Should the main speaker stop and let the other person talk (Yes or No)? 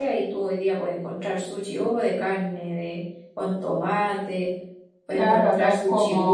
Yes